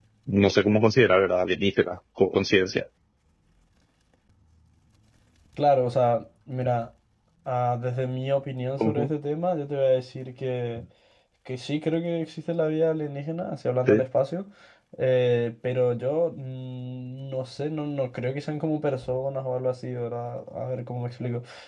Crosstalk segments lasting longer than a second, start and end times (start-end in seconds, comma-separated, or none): none